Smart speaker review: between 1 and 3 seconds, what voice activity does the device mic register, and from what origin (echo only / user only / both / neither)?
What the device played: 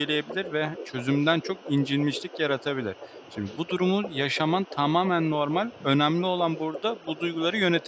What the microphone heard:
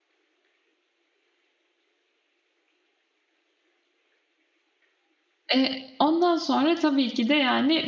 neither